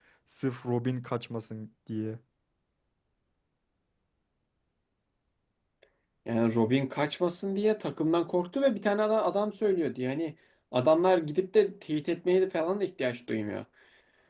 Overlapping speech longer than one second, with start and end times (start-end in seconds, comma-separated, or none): none